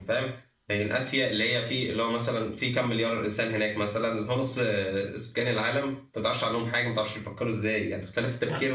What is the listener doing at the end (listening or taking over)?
listening